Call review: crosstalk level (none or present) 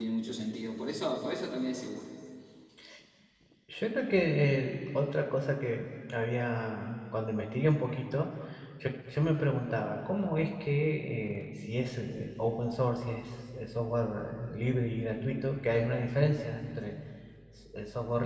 none